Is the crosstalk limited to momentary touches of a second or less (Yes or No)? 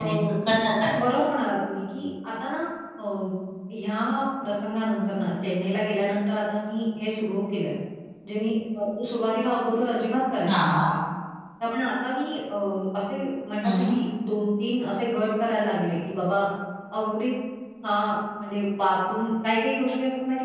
Yes